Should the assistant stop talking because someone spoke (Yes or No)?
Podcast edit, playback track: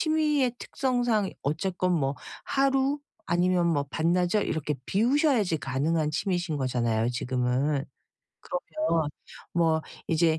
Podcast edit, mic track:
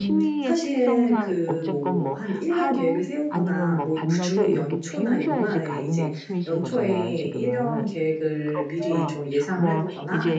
Yes